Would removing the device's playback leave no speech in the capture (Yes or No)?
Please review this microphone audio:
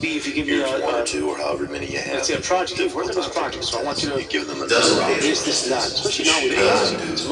No